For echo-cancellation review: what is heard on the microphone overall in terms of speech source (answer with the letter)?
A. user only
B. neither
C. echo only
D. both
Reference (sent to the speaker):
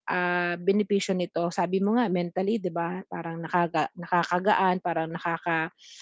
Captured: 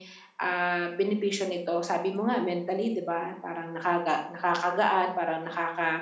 C